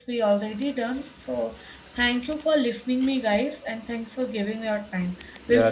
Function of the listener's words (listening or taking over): taking over